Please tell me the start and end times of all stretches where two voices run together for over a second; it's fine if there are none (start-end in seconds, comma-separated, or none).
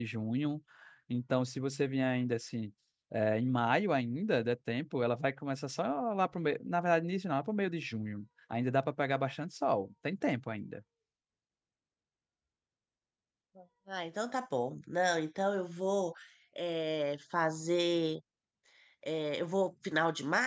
none